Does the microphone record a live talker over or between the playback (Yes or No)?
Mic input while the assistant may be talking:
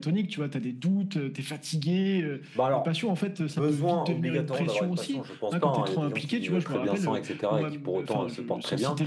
Yes